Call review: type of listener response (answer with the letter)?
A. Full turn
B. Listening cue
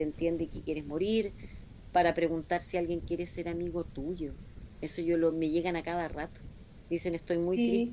B